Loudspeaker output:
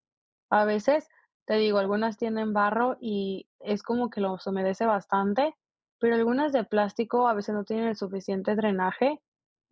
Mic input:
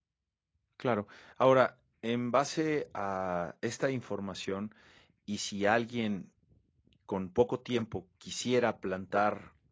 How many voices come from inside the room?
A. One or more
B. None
A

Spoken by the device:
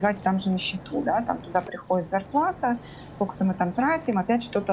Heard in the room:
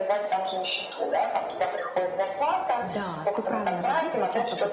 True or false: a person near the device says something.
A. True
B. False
A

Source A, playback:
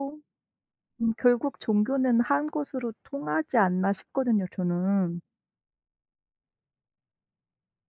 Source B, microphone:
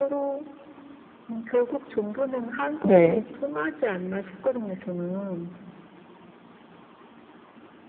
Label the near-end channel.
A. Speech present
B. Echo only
A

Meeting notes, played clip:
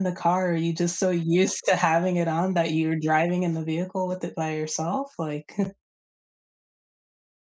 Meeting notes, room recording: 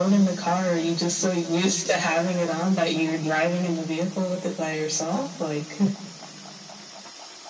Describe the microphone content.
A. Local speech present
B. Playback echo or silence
B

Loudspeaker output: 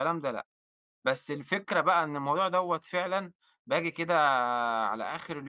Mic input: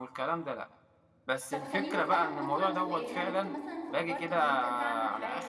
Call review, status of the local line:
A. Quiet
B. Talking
B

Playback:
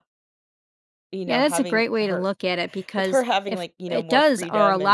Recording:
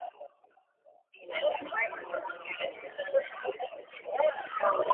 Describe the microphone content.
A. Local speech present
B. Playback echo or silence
A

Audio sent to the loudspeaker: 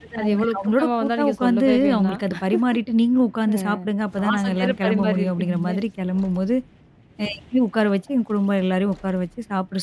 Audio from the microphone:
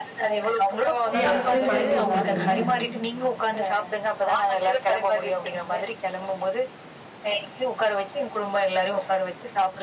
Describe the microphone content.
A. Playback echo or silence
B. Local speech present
B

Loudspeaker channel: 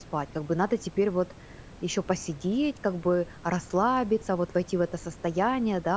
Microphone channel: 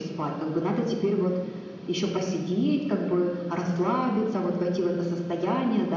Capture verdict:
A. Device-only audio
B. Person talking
A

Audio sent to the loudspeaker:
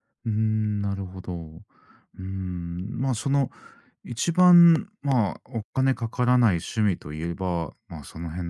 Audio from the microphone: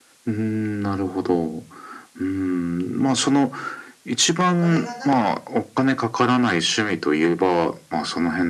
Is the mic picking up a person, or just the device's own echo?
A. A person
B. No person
A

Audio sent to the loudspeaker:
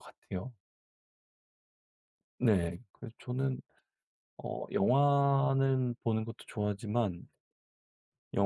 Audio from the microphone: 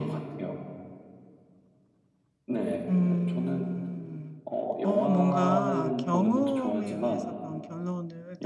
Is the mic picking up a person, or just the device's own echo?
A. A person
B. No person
A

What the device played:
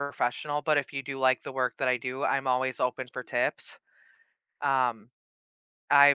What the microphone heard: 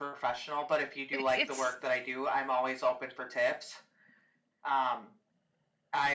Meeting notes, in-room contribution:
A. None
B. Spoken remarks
B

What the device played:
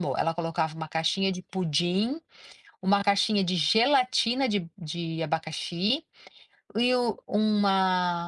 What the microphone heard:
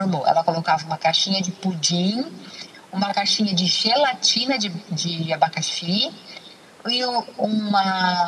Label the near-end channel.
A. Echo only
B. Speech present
A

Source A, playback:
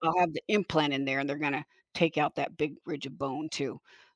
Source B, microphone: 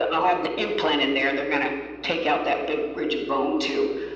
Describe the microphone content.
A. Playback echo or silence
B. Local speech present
A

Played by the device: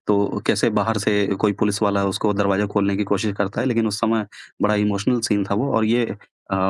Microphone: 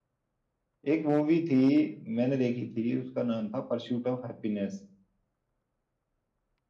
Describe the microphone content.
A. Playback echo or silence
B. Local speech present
B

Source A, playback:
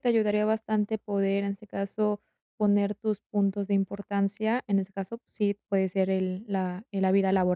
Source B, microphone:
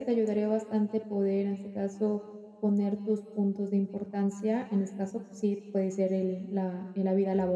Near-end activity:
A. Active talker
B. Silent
B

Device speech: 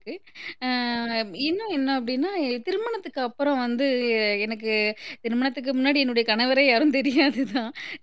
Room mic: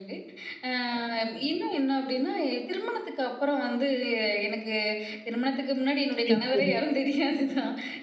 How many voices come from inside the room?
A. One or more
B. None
A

